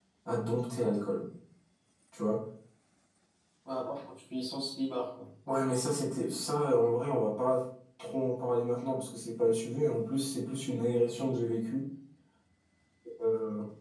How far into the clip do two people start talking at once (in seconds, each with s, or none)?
none